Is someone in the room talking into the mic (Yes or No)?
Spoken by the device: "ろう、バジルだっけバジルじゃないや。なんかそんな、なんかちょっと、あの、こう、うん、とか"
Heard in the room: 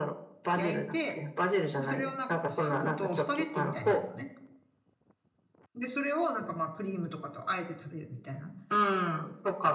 Yes